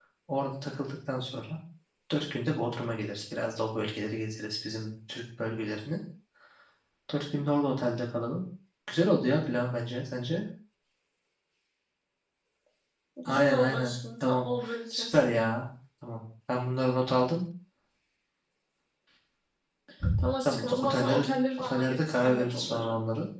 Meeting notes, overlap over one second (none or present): present